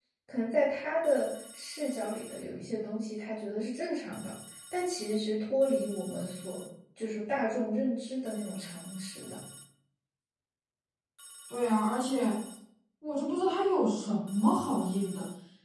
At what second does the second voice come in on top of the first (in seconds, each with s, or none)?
none